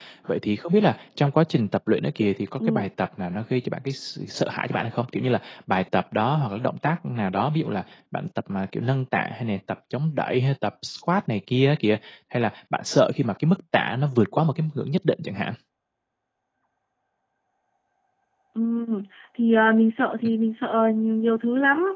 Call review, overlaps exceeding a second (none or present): none